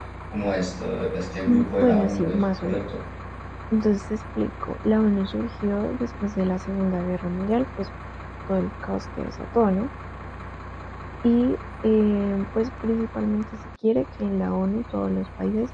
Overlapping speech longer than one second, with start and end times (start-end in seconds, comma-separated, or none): 1.5-2.8